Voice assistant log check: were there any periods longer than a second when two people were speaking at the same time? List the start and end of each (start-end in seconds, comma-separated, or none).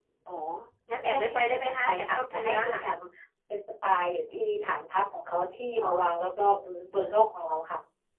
1.0-2.8